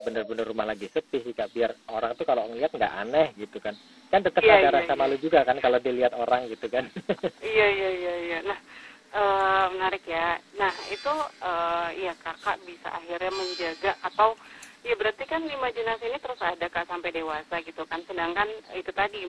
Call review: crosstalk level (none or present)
present